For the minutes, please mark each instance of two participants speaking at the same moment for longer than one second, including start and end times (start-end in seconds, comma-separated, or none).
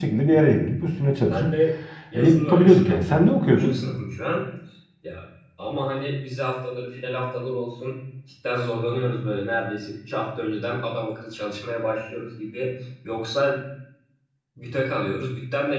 2.1-3.8